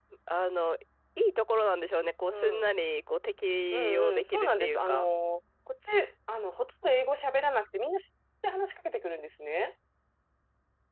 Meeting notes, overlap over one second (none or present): present